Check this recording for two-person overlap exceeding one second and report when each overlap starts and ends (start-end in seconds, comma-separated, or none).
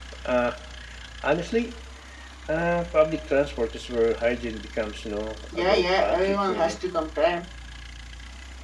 5.6-6.8